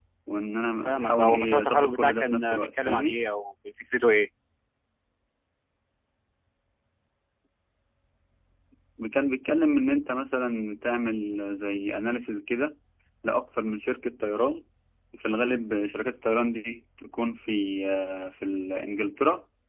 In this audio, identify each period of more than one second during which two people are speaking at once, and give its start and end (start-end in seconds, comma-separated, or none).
0.8-3.2